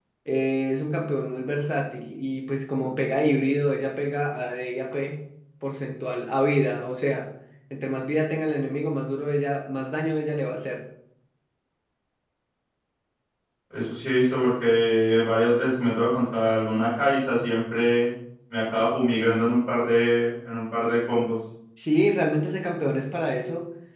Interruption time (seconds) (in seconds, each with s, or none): none